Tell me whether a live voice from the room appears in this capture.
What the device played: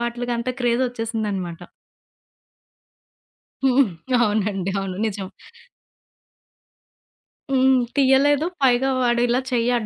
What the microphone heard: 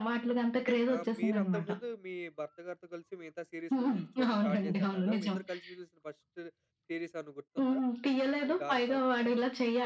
Yes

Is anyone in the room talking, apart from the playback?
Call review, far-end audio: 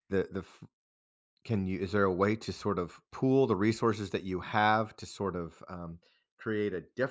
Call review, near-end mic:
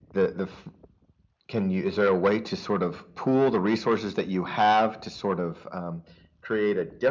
No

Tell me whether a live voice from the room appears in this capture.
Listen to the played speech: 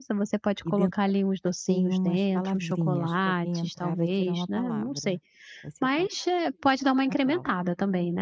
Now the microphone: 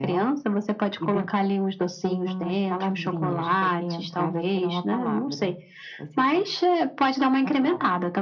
No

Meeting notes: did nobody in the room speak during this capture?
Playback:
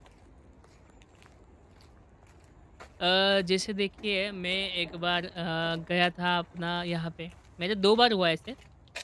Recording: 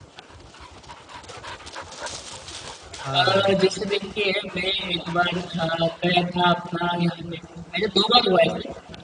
No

